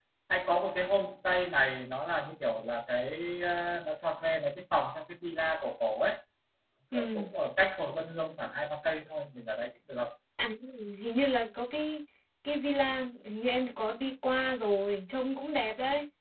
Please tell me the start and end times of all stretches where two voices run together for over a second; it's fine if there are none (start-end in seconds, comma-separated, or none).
none